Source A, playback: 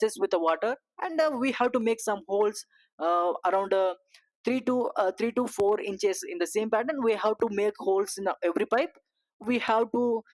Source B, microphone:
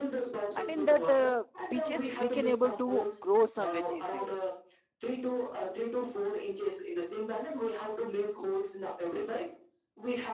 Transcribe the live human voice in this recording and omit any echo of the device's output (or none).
and in that uh, peaches we can able to grow some veggies there